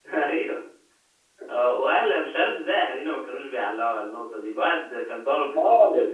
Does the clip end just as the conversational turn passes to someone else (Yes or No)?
Yes